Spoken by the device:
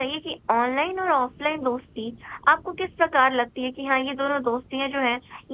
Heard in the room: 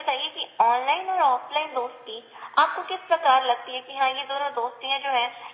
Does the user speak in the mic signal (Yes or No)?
No